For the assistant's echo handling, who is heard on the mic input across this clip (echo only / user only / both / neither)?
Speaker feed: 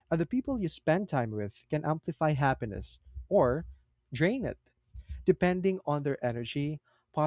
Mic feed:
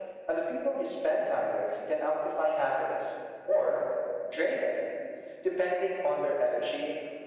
echo only